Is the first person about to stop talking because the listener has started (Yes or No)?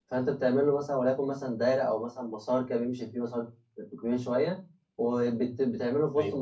No